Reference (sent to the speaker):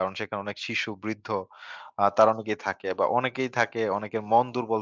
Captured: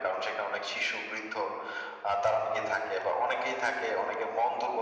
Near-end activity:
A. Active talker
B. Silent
B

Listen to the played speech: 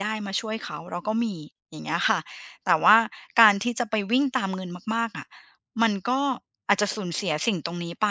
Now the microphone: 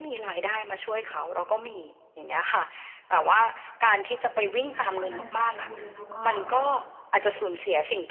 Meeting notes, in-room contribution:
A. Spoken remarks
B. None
A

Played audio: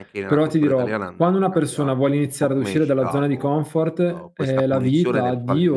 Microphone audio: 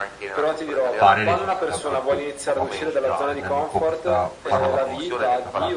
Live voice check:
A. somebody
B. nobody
A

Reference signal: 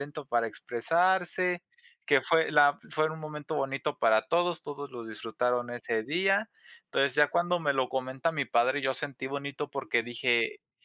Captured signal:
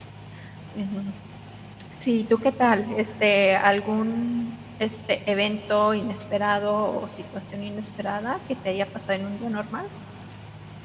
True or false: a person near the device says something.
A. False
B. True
B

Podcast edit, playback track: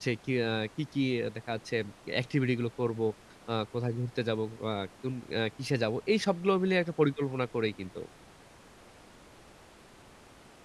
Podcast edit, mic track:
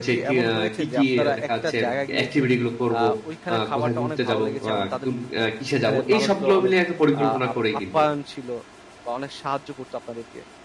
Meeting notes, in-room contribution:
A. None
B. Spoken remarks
B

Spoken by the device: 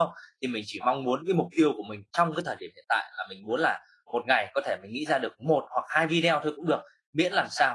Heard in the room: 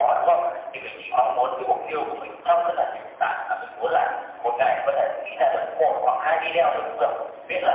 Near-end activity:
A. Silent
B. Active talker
A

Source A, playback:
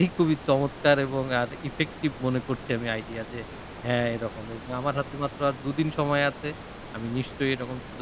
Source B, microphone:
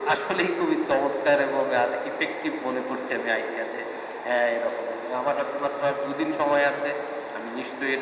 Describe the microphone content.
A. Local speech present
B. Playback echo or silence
B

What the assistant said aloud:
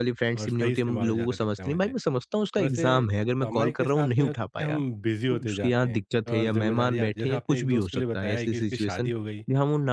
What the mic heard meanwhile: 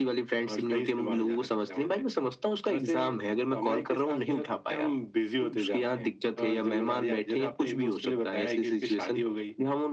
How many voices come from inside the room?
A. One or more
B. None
B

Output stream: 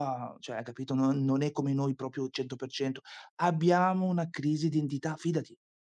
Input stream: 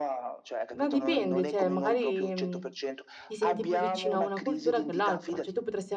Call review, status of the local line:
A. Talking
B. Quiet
A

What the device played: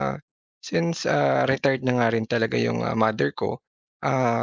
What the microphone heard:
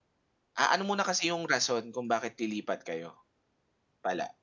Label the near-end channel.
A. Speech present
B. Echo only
A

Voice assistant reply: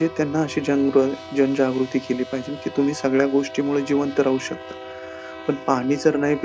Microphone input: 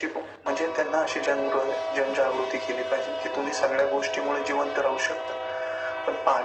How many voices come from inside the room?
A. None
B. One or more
A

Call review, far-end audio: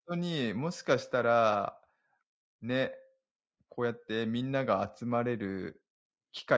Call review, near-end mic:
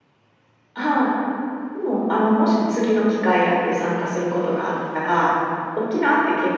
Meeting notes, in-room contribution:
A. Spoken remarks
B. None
A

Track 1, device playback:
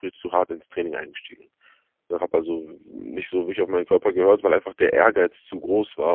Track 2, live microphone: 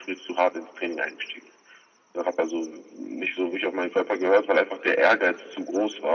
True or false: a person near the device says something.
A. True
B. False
B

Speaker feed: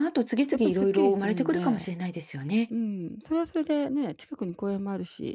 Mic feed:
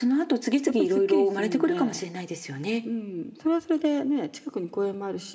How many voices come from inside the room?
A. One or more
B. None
B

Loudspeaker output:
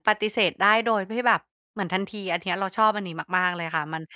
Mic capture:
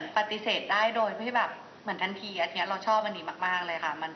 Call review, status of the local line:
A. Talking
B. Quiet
B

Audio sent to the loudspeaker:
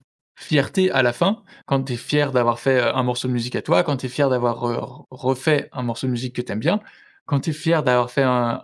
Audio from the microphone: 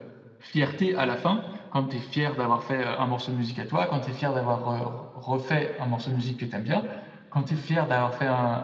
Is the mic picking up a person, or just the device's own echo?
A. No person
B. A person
A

